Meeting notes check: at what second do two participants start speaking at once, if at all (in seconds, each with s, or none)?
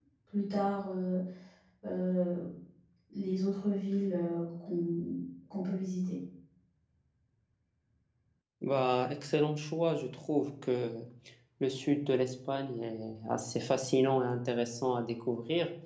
none